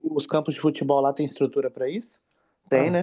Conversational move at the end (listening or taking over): taking over